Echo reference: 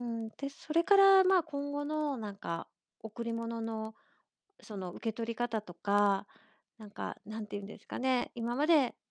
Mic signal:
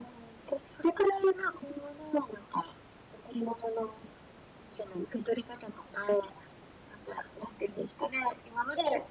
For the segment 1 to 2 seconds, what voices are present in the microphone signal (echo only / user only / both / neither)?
echo only